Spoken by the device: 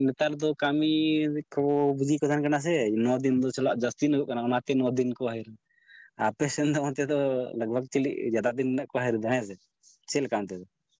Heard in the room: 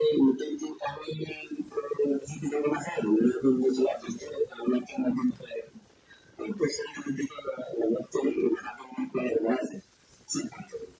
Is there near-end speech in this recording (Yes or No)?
No